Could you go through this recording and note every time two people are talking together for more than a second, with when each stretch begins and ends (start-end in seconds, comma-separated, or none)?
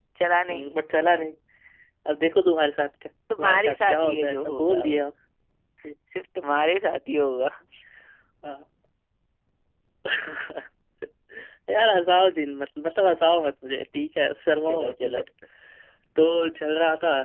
3.4-4.9